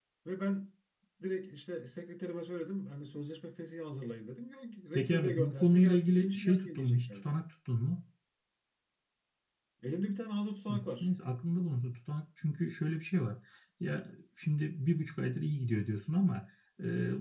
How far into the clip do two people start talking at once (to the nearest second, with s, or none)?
5 s